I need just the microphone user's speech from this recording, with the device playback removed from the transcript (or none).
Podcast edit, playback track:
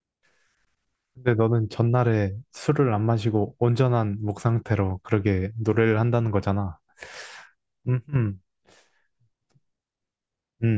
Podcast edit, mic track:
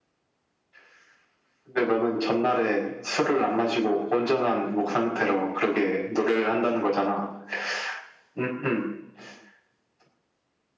none